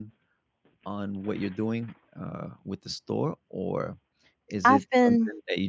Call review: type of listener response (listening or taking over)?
listening